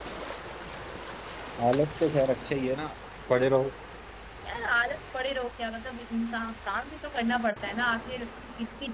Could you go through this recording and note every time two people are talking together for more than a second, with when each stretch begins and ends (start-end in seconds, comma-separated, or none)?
none